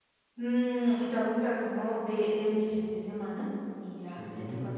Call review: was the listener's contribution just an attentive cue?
Yes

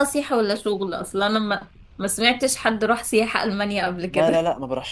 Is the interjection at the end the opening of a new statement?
Yes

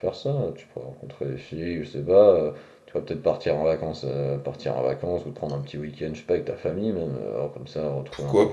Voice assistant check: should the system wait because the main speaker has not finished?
No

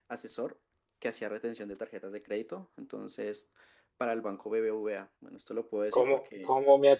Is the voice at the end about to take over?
Yes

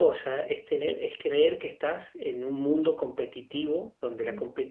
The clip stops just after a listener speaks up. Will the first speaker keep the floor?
Yes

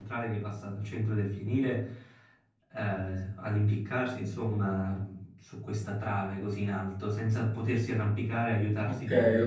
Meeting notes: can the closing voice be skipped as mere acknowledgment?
No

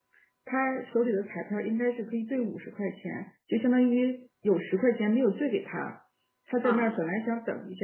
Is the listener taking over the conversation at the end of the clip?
No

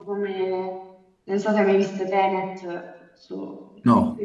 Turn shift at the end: No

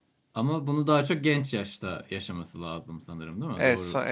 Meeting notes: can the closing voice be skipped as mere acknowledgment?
No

